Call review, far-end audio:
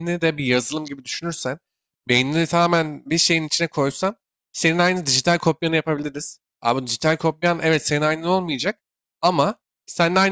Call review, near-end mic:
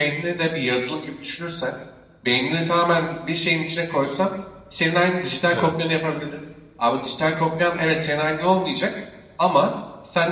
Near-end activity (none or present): present